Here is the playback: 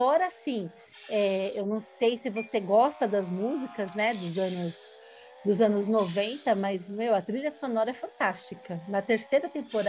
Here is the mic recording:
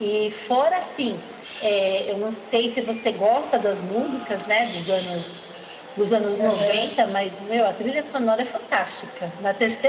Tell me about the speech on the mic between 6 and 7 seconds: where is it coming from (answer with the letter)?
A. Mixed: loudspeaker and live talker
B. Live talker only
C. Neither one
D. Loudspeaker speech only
A